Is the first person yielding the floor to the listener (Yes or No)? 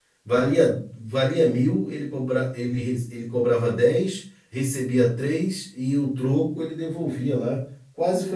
Yes